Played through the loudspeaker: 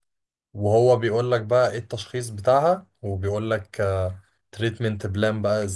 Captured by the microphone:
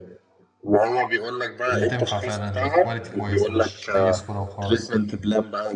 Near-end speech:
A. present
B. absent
A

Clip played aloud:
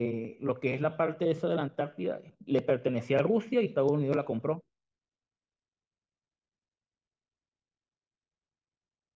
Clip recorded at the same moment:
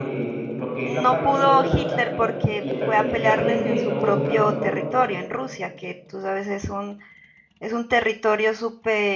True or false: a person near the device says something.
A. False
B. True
B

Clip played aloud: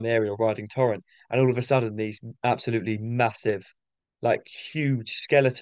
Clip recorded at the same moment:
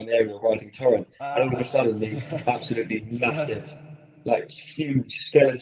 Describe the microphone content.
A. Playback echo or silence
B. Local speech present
B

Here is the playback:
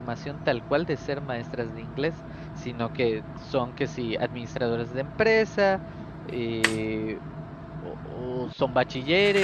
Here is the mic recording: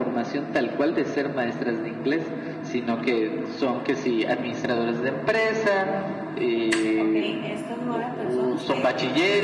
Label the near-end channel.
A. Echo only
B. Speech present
B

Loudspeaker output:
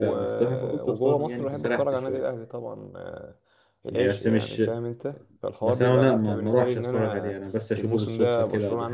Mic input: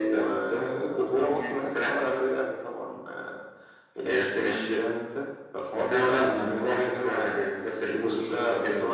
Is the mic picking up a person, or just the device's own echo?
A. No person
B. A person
A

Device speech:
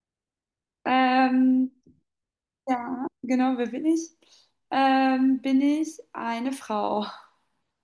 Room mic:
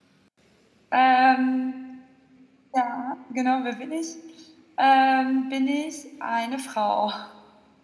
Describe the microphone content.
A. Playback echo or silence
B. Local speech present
A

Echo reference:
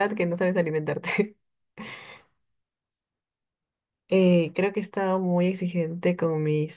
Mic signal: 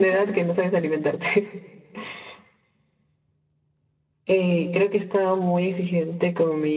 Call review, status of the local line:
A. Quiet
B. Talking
A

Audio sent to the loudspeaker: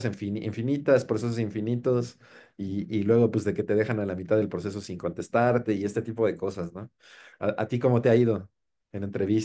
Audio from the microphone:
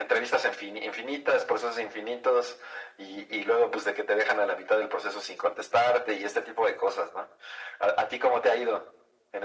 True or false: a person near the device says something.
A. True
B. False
B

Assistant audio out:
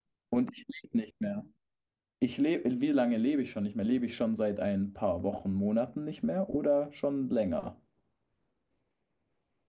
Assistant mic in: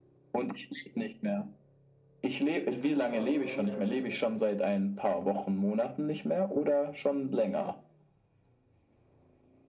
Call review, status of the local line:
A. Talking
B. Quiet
A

